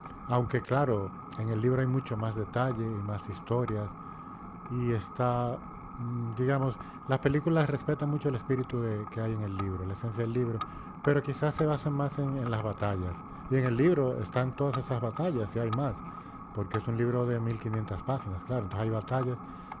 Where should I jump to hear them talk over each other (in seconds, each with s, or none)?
none